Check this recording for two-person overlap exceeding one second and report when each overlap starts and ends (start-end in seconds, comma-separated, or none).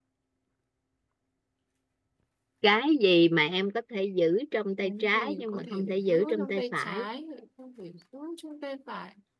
4.8-7.0